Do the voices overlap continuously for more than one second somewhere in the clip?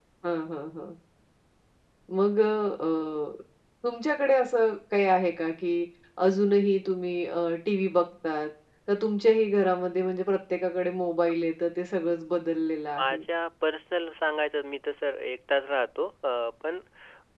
No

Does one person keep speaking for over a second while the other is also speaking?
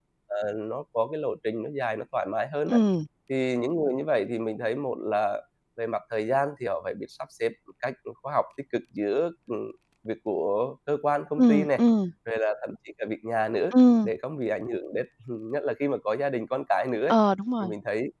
No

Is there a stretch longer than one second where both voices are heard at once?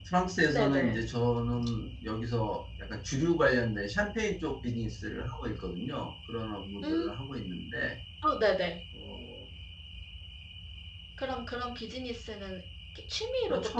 No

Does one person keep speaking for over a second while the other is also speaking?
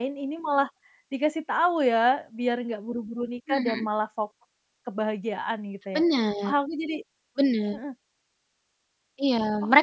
No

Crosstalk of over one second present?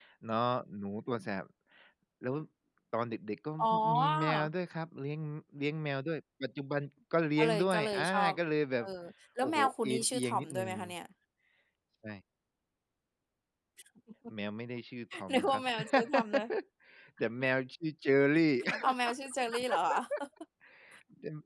Yes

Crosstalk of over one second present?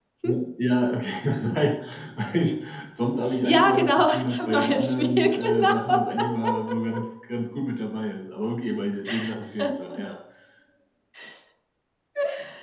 Yes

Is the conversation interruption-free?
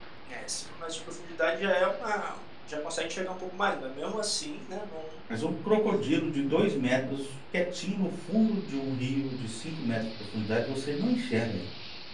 Yes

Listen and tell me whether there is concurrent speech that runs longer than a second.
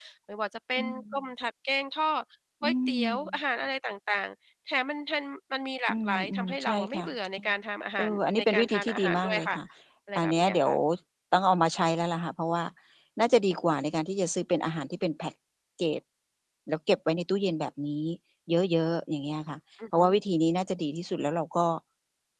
Yes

